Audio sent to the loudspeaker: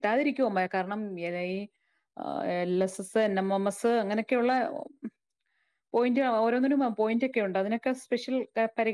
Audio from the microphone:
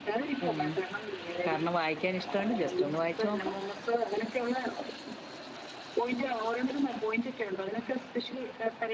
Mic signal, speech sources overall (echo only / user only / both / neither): both